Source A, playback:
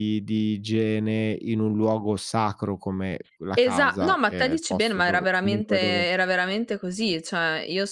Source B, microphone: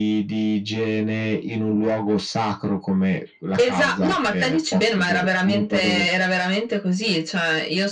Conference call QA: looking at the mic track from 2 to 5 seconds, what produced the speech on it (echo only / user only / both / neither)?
echo only